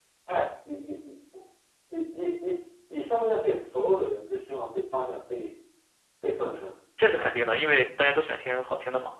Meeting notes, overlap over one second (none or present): none